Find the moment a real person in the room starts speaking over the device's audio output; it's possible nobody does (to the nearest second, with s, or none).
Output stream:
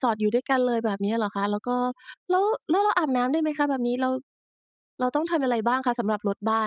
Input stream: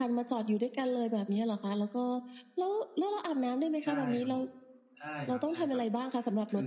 4 s